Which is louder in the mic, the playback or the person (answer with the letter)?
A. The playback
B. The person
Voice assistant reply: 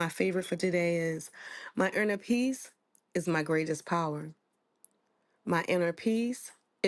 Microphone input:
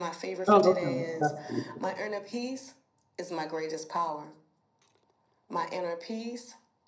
B